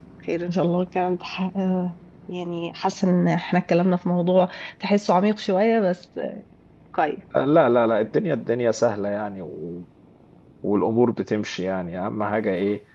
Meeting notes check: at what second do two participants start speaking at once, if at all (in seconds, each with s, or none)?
none